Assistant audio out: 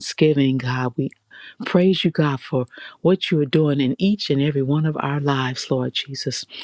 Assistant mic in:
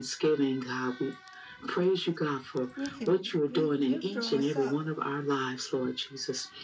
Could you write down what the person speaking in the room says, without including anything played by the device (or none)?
We can we you draw us up.